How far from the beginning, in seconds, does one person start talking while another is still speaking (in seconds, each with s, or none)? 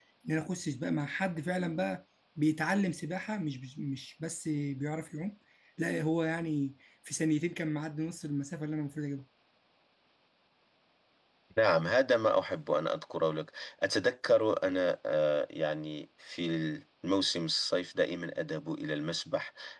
none